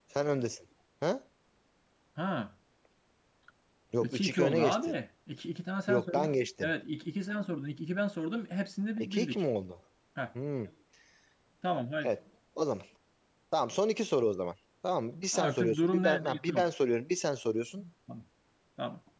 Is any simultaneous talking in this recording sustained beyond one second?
Yes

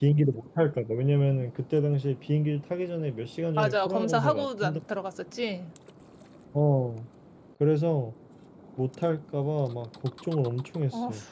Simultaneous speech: Yes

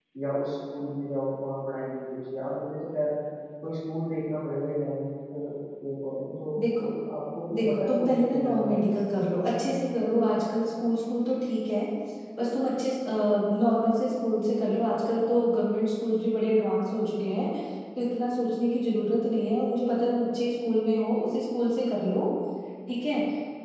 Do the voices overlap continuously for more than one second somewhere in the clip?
Yes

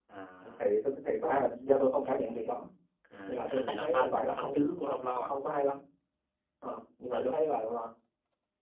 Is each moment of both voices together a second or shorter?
No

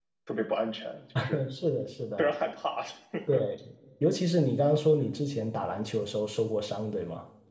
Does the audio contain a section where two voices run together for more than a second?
No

